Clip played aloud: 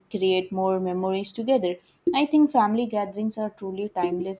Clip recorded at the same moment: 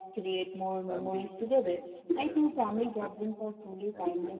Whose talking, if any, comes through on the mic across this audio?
both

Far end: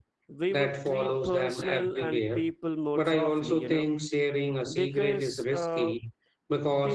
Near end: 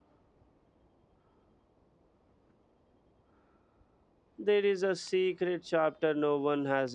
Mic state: user only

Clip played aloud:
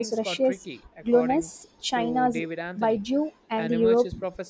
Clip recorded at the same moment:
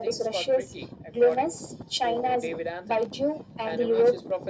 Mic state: echo only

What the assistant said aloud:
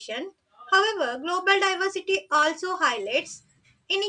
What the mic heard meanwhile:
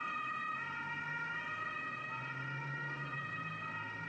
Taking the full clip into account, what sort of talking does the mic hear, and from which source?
neither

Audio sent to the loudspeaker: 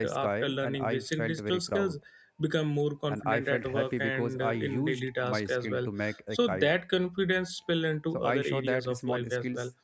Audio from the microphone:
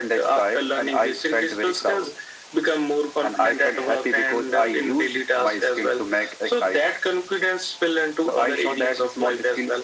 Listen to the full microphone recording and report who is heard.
echo only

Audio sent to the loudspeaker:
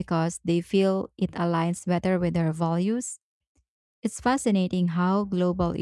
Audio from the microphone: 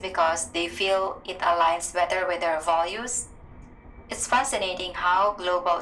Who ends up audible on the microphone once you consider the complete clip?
echo only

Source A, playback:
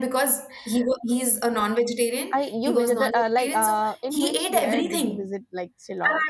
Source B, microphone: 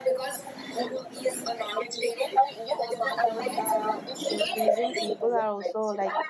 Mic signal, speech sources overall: both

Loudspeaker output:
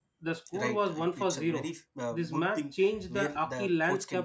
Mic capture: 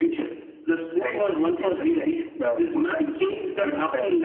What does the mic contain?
echo only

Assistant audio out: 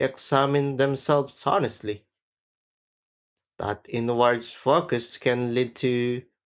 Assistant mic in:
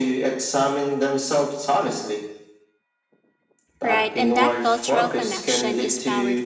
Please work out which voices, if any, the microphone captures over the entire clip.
both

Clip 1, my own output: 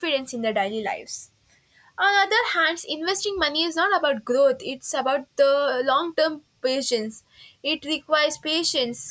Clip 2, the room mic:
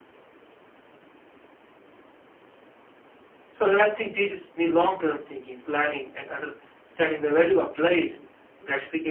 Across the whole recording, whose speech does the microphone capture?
user only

